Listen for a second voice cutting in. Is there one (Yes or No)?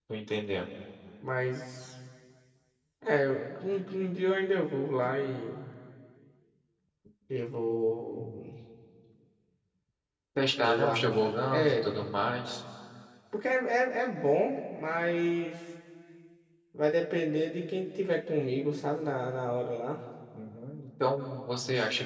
Yes